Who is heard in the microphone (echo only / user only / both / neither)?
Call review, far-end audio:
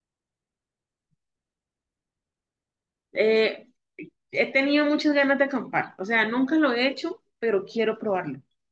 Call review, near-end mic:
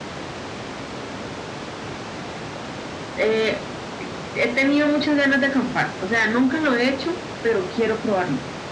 echo only